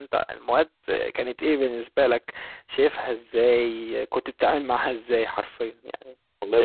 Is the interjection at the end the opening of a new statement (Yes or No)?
Yes